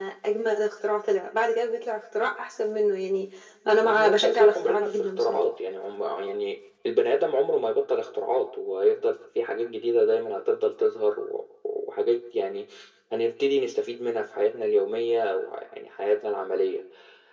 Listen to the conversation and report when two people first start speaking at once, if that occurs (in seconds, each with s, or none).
3.8 s